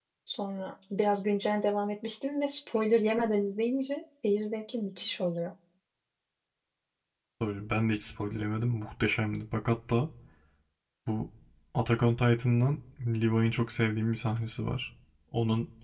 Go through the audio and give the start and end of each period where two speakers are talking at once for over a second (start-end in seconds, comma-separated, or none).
none